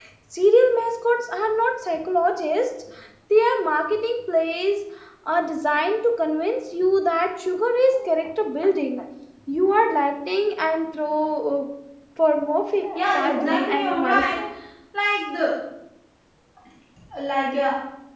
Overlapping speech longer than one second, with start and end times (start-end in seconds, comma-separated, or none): 12.9-14.2